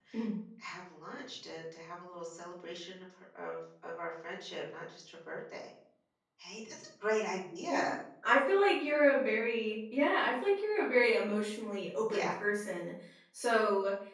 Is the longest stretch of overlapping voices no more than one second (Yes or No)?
Yes